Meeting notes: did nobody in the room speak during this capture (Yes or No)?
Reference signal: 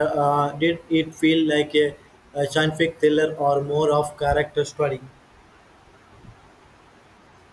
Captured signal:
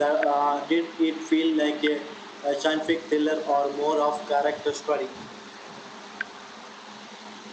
Yes